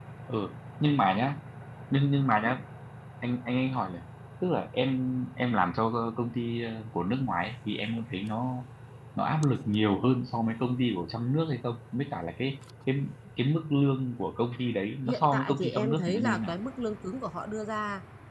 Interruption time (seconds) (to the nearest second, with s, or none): 15 s